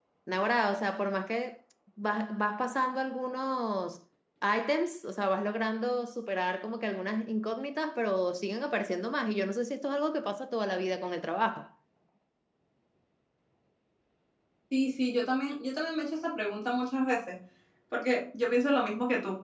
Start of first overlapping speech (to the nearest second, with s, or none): none